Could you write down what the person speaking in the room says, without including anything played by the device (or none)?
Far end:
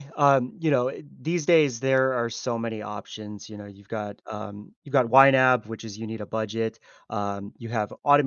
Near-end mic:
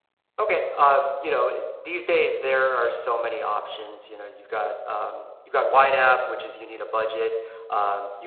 none